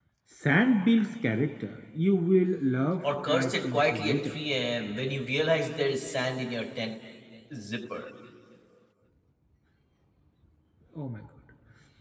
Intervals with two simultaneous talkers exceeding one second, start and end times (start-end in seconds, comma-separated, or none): 3.0-4.3